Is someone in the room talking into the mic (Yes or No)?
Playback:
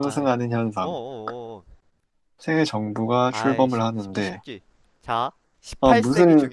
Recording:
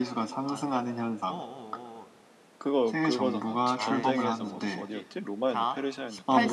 Yes